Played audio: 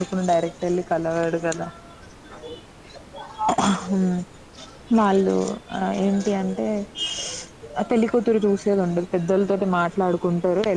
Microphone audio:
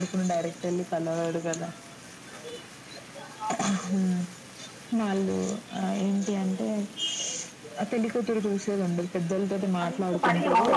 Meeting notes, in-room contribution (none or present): present